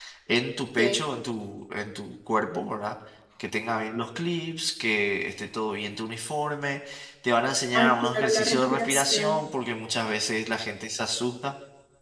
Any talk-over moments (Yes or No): Yes